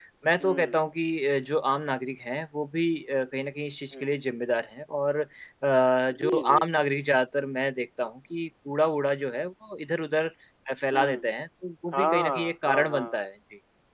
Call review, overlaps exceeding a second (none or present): present